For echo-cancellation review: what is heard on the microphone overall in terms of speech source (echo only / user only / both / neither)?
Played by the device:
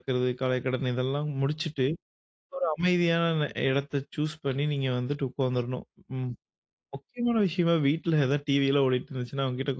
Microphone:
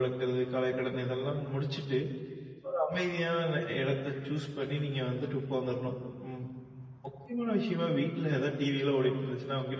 echo only